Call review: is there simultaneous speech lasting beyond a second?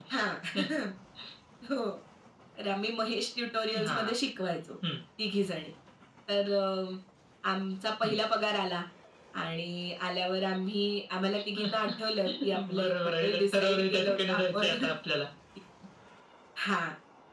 Yes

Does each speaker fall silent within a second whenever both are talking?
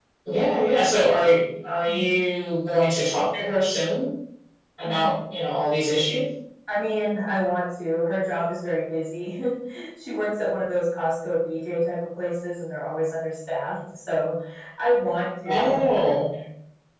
Yes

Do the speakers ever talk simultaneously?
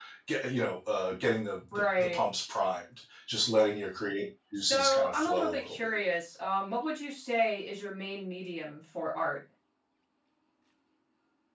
Yes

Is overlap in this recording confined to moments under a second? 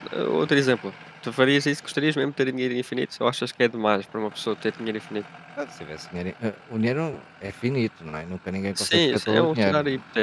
No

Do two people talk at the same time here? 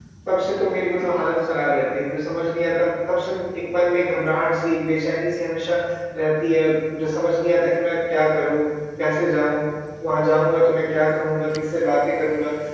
No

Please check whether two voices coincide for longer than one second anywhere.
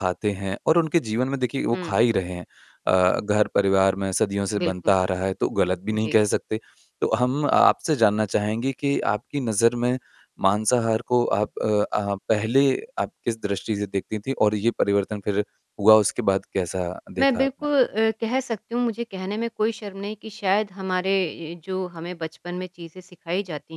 No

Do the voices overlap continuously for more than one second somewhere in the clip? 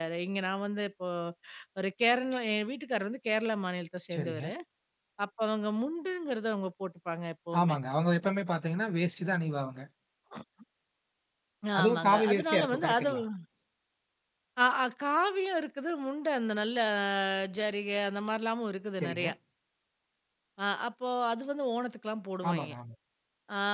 Yes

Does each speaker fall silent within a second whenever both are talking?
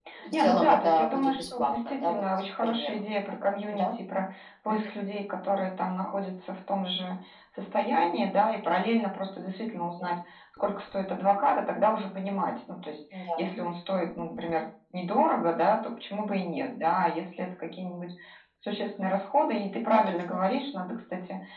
No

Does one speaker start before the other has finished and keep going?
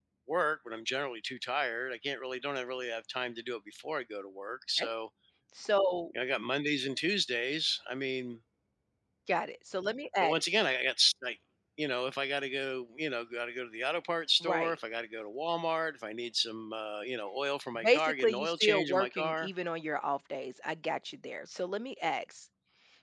Yes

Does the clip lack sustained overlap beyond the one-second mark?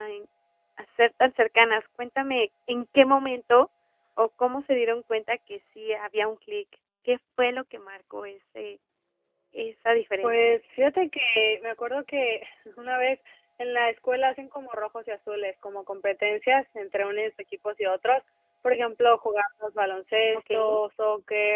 Yes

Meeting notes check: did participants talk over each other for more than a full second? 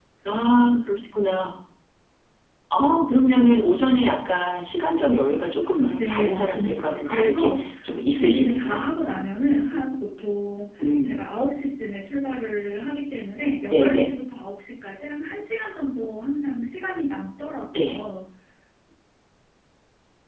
Yes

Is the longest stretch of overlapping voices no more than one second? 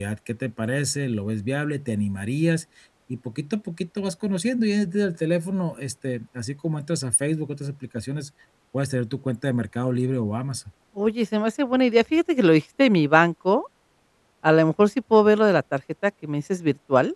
Yes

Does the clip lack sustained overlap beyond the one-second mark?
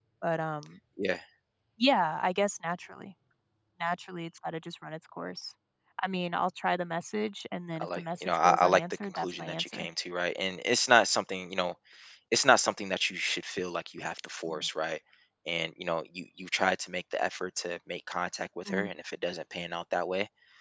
No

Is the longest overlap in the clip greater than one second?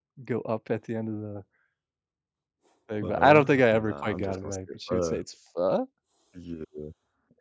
Yes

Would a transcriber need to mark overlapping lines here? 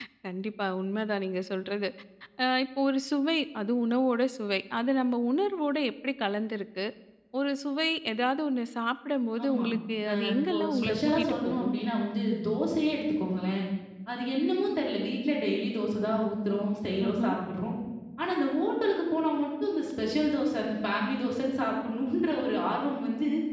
Yes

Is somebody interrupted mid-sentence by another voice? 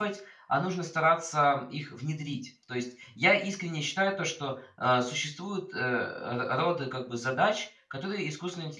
No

